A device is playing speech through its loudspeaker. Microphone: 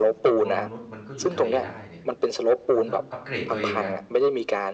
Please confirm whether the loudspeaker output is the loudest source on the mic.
Yes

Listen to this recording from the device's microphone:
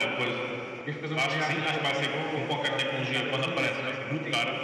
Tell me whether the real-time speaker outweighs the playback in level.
No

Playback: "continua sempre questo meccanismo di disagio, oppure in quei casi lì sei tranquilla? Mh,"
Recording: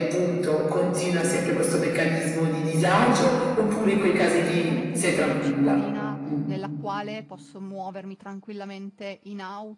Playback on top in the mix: Yes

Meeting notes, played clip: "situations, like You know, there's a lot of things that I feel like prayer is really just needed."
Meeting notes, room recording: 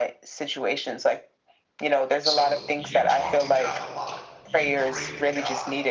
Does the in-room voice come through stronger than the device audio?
No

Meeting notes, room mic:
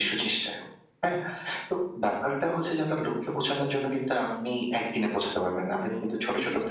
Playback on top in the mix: Yes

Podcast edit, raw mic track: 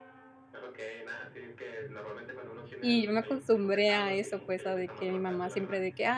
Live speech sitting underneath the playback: No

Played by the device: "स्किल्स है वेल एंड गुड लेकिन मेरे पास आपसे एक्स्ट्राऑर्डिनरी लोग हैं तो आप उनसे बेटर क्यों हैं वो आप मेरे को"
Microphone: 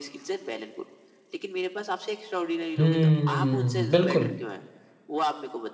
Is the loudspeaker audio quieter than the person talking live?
Yes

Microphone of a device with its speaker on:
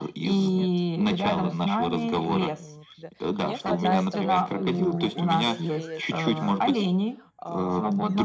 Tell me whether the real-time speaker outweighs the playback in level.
No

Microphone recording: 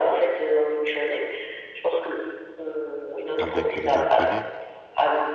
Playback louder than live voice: Yes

